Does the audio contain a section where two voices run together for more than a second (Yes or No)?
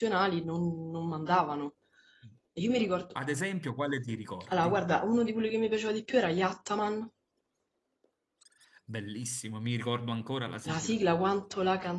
No